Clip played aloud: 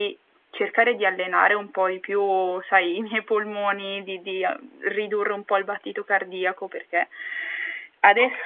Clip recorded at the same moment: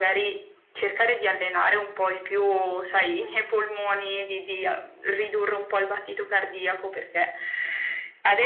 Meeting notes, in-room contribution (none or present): none